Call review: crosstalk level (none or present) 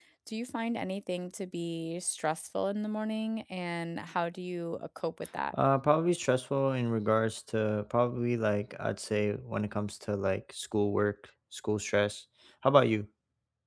none